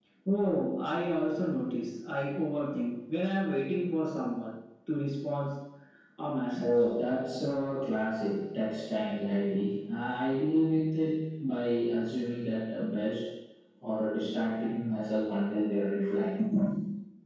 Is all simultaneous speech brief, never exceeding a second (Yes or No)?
Yes